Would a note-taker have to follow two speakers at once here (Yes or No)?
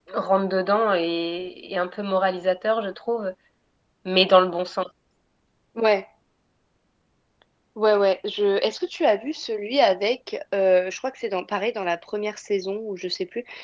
No